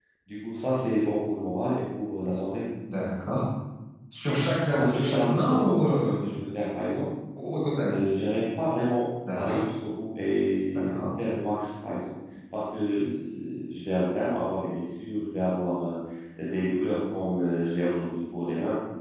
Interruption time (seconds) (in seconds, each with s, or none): 4.6 s